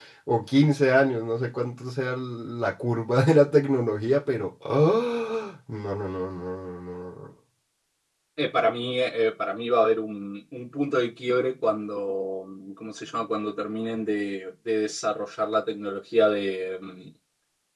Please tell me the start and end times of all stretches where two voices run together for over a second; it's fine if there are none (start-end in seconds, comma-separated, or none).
none